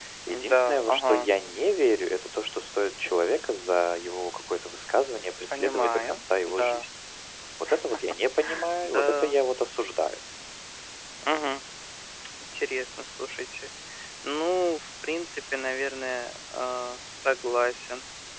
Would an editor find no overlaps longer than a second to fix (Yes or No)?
No